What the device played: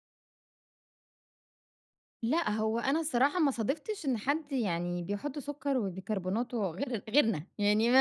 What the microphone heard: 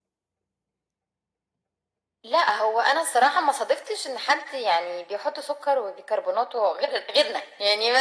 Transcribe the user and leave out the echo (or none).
none